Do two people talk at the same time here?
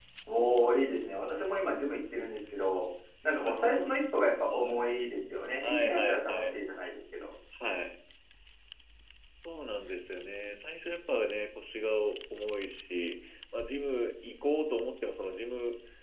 Yes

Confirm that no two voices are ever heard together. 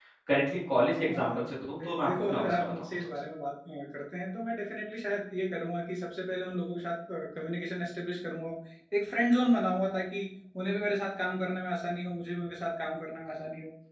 No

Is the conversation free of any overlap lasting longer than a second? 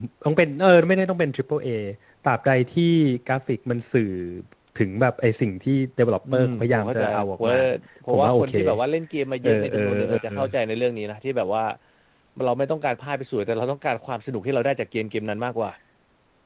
No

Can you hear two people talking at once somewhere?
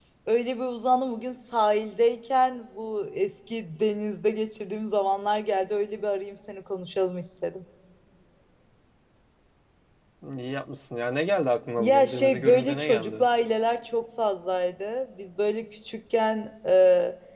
Yes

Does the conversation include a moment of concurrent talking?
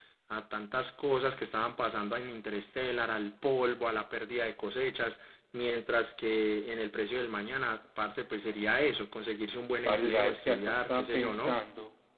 Yes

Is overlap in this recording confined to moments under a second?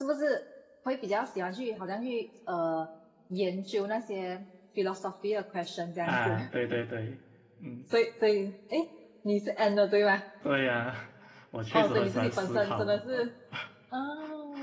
No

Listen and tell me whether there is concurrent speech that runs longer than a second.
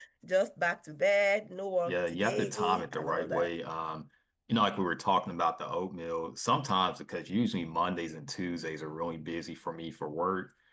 Yes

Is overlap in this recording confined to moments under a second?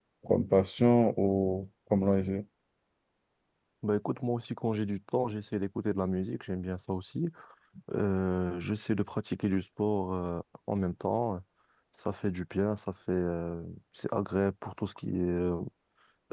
Yes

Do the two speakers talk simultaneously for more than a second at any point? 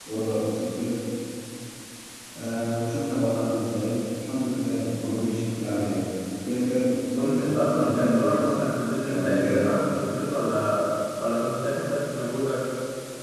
Yes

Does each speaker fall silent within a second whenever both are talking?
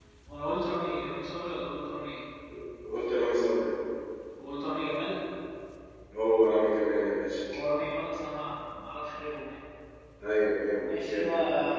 Yes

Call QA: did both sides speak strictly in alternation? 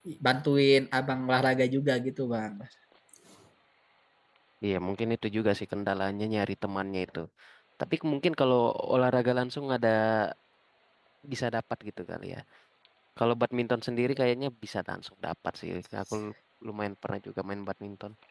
Yes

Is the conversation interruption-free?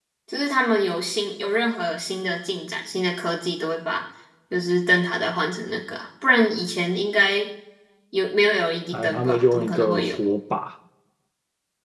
No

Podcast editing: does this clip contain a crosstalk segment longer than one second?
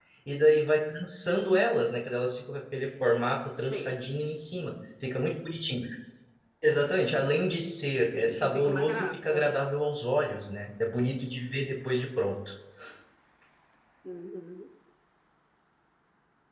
Yes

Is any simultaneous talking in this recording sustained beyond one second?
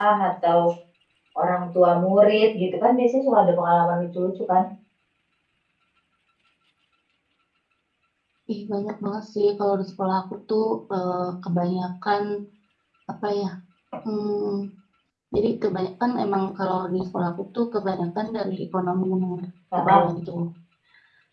No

